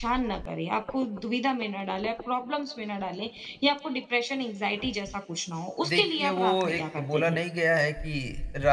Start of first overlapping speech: 5.8 s

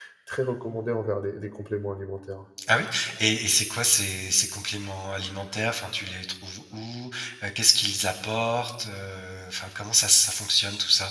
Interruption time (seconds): none

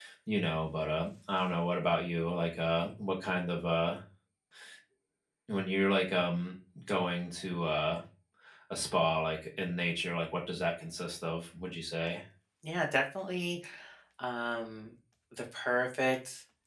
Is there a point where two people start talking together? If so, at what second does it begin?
none

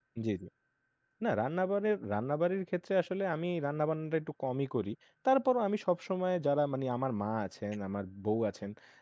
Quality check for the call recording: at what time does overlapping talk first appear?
none

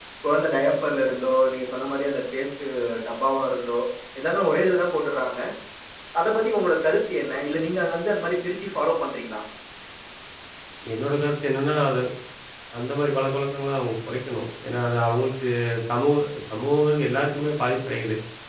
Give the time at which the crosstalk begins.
none

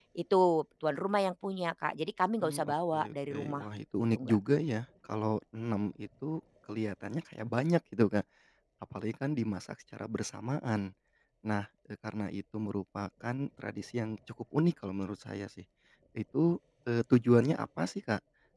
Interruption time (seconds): 2.4 s

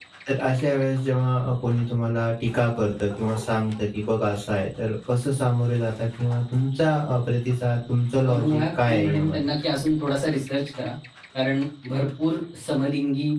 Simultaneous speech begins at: 8.2 s

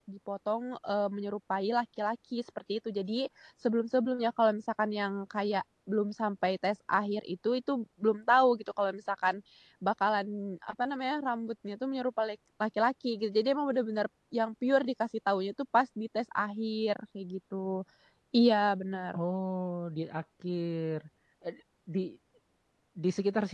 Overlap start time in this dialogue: none

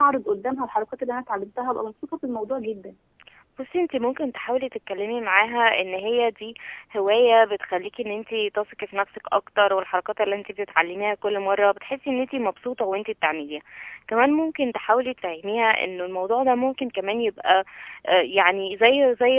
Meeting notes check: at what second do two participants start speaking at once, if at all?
none

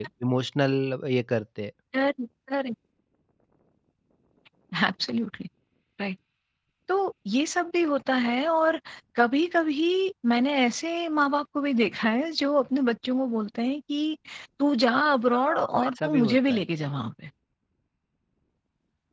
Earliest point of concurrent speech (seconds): 15.3 s

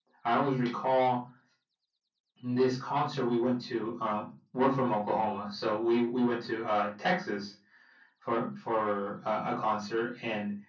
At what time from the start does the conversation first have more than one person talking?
none

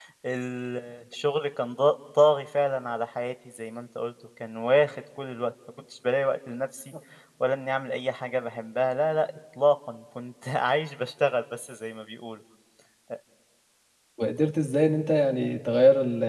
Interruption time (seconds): none

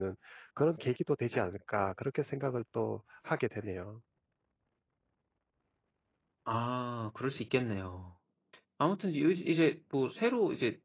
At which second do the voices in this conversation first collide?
none

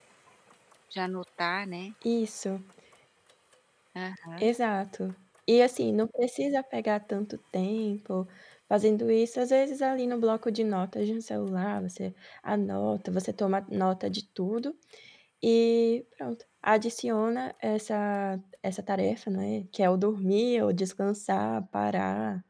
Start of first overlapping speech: none

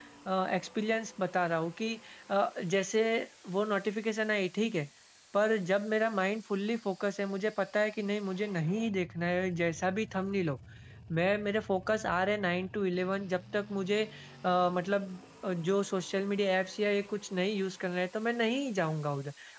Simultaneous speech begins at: none

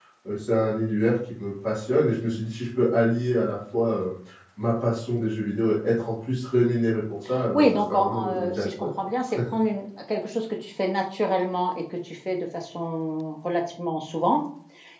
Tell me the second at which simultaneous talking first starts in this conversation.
7.5 s

